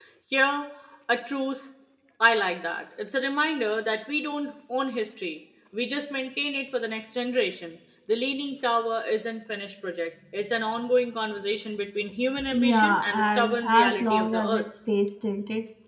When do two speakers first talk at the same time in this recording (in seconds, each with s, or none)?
12.5 s